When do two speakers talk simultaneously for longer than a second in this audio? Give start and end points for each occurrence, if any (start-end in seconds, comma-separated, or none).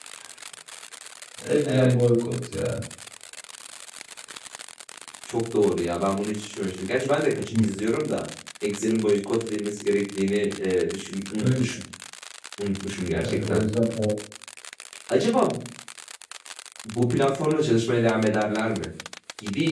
none